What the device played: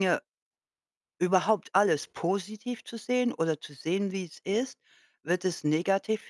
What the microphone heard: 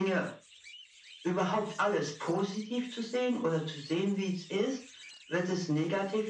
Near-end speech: none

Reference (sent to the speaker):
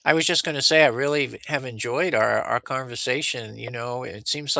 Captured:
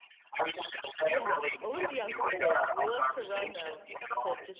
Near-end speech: present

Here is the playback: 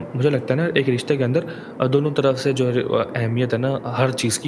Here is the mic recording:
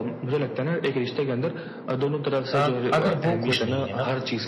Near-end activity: present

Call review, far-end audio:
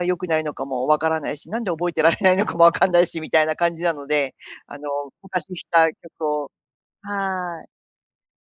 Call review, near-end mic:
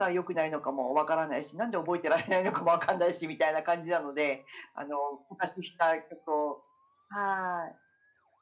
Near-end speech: none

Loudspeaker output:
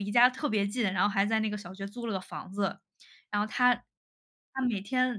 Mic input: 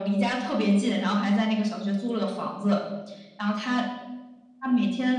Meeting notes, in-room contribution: none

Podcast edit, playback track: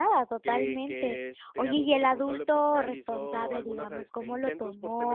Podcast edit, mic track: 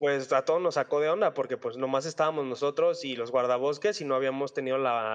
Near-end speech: present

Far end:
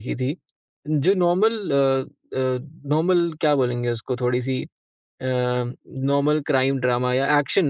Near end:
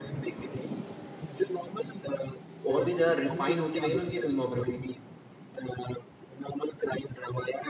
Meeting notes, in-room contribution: present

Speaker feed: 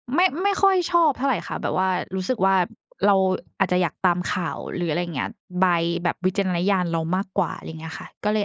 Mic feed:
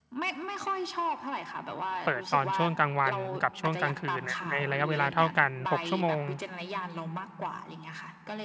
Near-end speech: present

